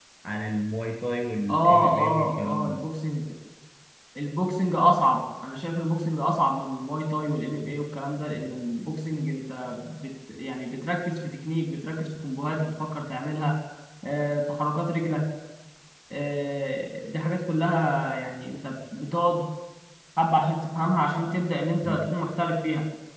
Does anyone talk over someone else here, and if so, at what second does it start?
1.5 s

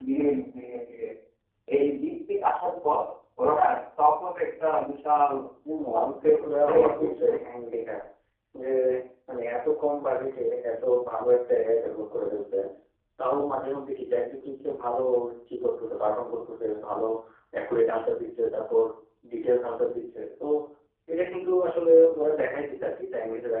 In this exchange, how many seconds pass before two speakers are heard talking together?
5.9 s

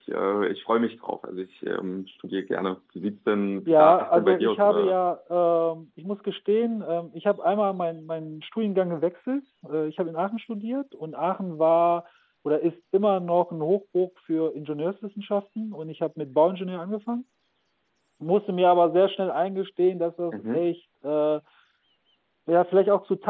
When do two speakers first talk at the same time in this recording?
3.7 s

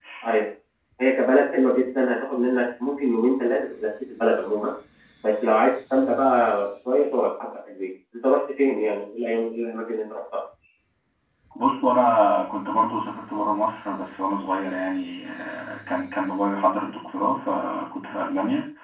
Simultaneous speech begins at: none

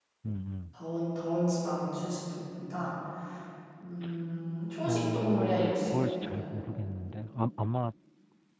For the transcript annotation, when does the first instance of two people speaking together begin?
4.8 s

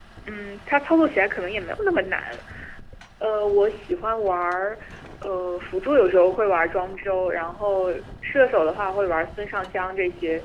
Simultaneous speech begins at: none

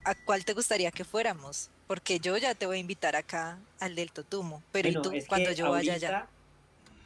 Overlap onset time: 4.8 s

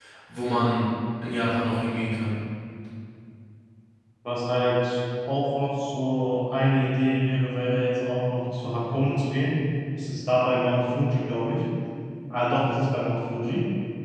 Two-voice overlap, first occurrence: none

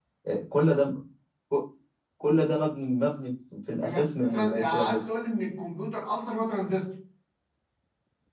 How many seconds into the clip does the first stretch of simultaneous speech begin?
3.8 s

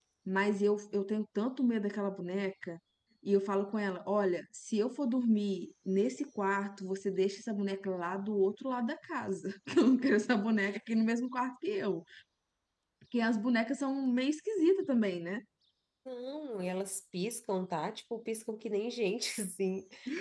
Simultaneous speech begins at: none

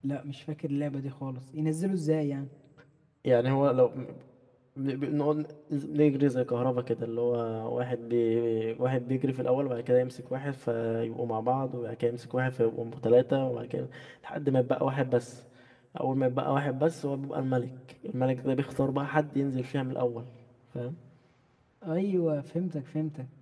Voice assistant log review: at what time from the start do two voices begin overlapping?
none

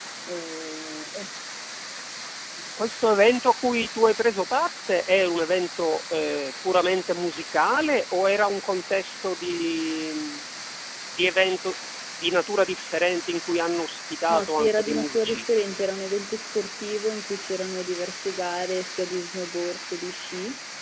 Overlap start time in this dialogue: 14.3 s

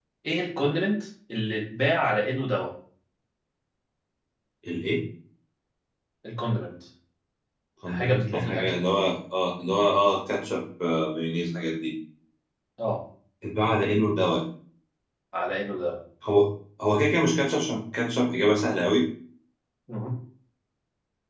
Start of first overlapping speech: 7.9 s

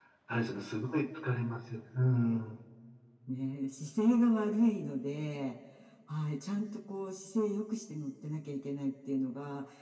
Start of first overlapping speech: none

